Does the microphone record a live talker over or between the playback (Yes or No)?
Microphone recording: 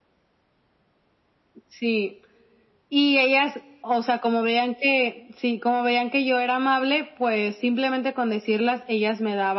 No